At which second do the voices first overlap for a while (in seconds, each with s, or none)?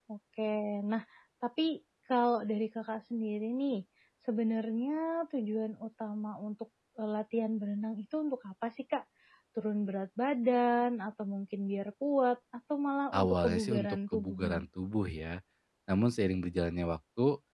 13.1 s